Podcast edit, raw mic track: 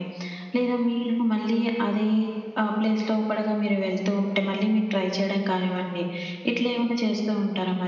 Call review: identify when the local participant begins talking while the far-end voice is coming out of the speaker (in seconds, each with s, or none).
none